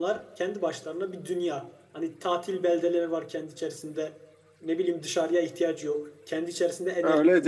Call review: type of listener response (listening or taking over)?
taking over